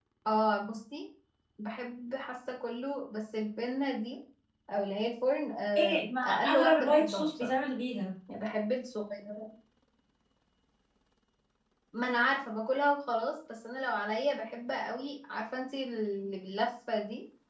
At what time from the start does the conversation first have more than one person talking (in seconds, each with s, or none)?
5.8 s